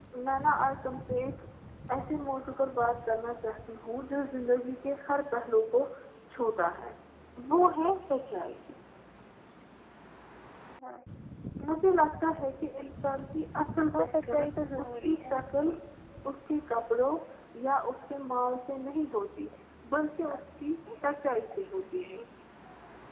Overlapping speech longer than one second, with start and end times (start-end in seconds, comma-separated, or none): 14.0-15.3